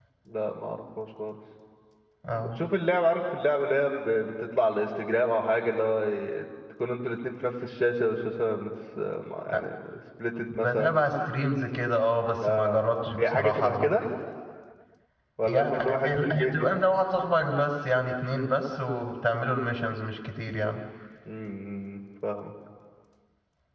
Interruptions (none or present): present